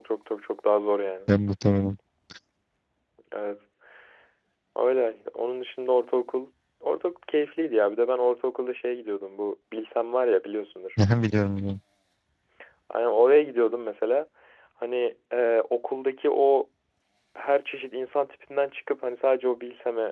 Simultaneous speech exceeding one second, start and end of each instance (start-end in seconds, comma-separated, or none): none